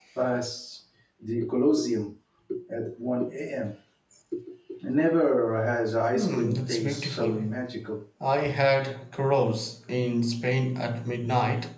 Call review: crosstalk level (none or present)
present